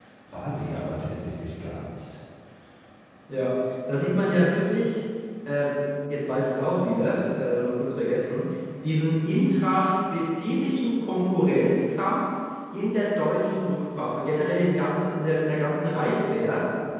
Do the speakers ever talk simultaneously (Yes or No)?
No